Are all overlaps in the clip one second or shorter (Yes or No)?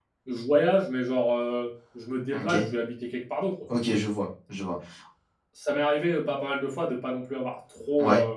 Yes